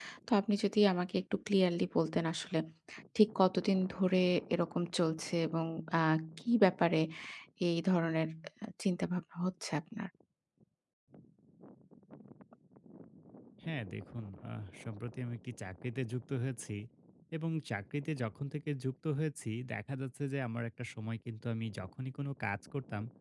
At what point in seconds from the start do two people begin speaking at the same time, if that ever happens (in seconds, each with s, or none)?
none